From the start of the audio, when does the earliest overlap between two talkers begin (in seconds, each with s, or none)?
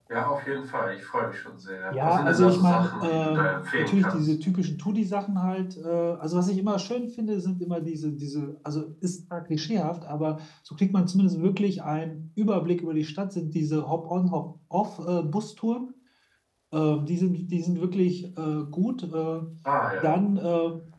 1.9 s